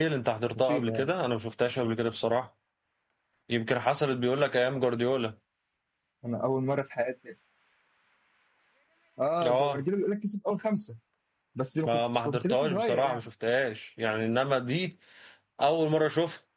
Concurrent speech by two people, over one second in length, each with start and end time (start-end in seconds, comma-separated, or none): 11.8-13.2